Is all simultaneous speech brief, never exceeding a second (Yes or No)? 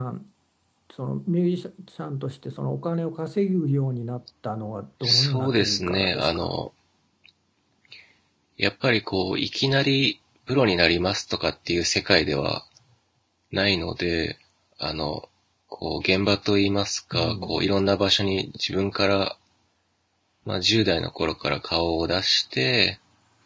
No